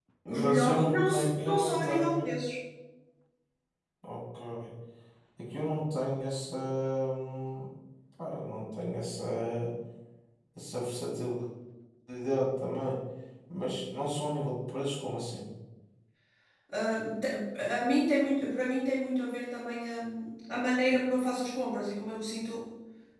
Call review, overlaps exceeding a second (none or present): present